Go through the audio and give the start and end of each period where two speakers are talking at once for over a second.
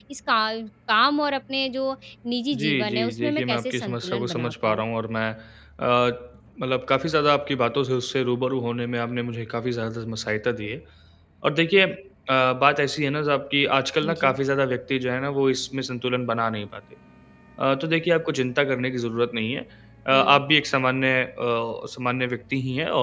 2.5-4.9

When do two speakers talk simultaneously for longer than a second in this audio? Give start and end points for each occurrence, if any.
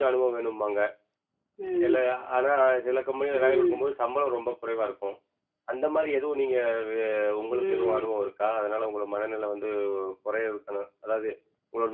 none

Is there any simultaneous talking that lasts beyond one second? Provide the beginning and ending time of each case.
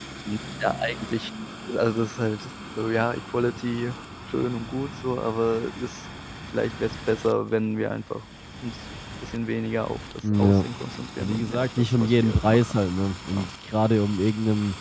11.2-12.7

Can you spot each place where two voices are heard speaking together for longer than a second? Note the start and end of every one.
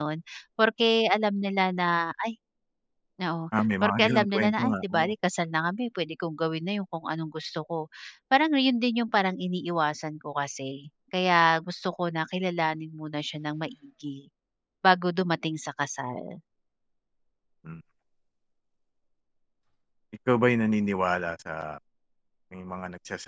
3.8-5.1

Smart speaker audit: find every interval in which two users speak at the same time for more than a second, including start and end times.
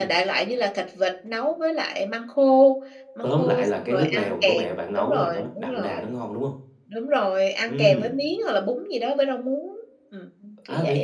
3.2-6.1

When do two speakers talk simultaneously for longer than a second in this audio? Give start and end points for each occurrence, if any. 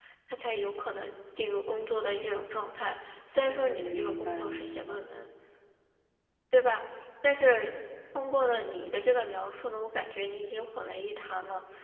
3.5-5.0

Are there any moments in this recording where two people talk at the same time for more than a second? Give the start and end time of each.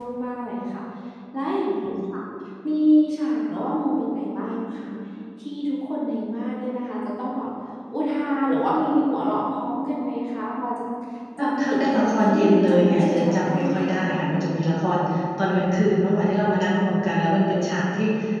11.4-14.0

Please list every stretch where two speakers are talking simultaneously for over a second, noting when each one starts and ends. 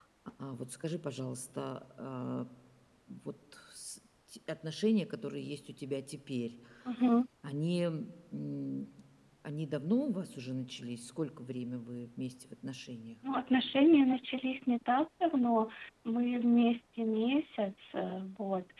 none

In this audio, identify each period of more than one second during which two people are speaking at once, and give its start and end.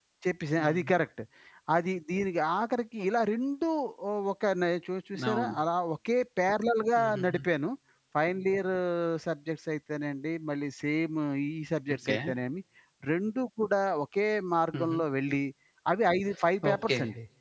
none

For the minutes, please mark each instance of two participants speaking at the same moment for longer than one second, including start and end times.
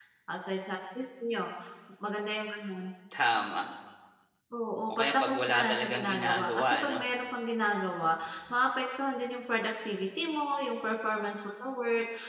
4.9-7.0

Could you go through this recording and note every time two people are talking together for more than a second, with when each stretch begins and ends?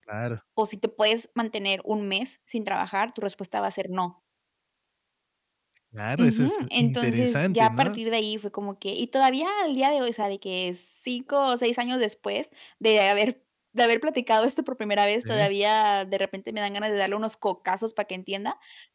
6.2-8.0

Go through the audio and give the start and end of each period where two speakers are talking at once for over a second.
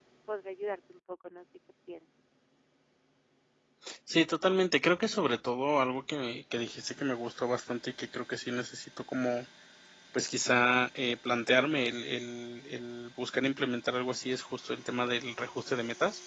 none

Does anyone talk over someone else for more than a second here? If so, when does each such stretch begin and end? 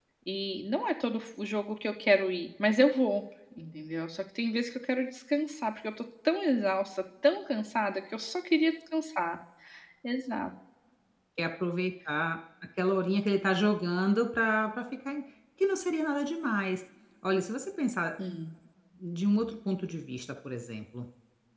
none

